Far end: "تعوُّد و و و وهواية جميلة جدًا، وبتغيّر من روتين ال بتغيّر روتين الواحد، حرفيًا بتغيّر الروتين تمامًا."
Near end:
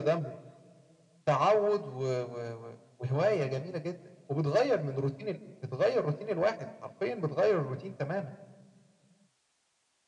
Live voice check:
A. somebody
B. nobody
B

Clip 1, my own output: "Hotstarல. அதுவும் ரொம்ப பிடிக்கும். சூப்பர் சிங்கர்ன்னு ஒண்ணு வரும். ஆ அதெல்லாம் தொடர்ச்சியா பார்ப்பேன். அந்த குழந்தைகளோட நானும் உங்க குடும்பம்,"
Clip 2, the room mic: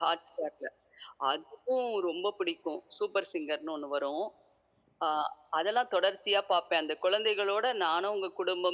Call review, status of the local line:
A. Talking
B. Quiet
B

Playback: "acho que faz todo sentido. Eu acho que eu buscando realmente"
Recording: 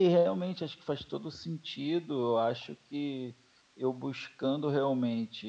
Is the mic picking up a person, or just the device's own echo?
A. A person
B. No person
B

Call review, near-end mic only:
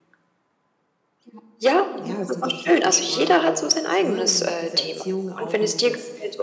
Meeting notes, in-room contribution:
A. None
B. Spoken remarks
B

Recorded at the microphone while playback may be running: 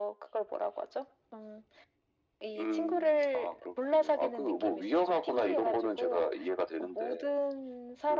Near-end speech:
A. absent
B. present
A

